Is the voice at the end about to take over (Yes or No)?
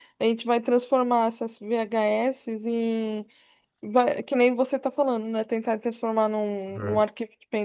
No